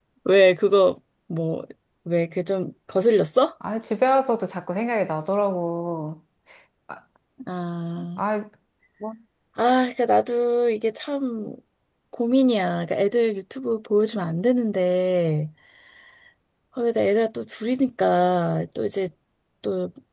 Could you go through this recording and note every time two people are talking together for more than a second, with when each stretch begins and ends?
none

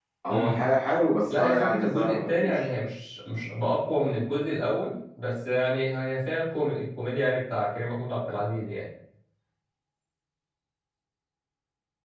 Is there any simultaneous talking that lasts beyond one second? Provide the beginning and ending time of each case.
1.3-2.6

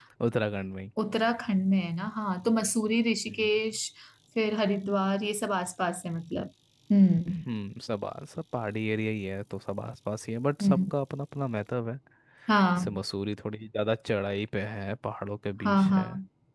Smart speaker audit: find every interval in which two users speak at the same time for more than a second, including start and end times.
none

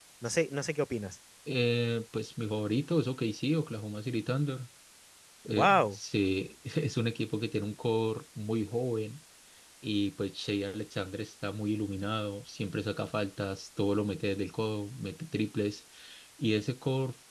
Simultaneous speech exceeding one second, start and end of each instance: none

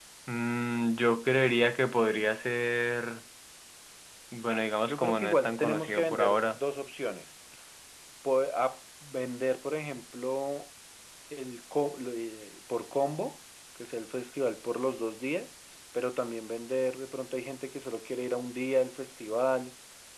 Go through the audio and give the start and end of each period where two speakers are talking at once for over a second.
4.8-6.6

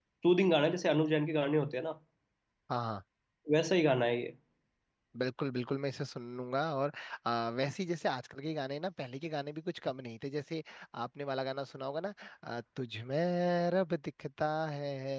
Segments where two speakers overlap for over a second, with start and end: none

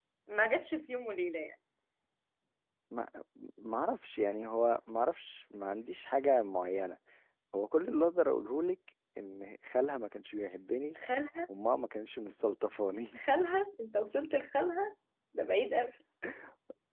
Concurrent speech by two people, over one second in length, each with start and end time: none

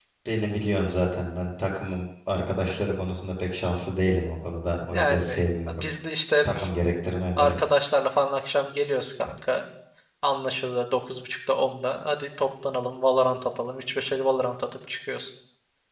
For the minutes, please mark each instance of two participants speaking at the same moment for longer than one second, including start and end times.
none

